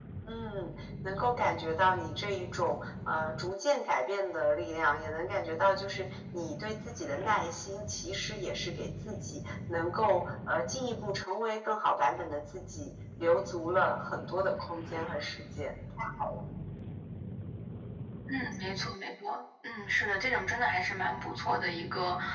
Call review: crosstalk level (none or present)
none